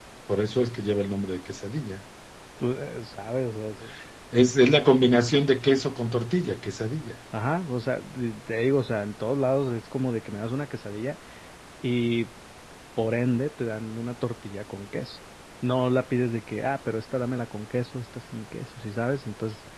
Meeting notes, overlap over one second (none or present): none